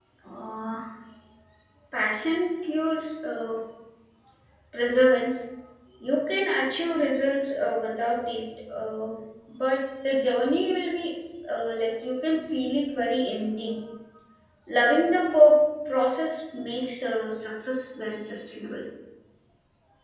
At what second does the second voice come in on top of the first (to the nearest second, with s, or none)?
none